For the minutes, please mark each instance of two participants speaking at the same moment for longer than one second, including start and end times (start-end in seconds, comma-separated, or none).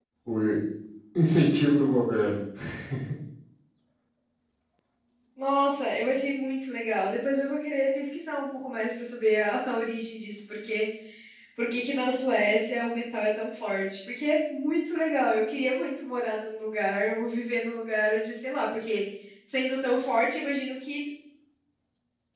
none